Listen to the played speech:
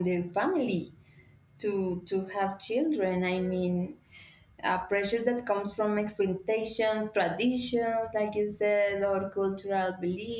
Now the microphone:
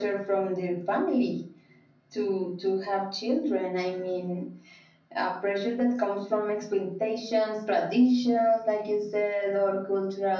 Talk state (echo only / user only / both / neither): echo only